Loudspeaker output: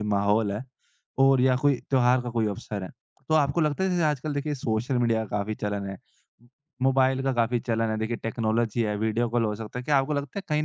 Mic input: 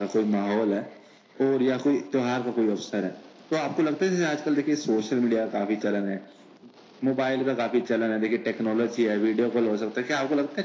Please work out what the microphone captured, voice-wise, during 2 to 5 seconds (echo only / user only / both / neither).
echo only